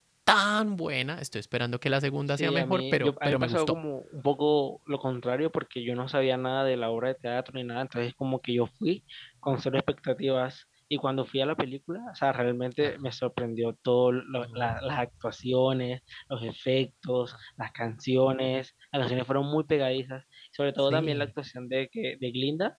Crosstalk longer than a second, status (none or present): present